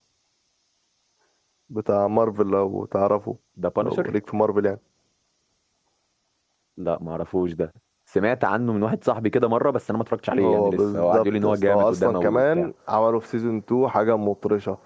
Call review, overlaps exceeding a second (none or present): present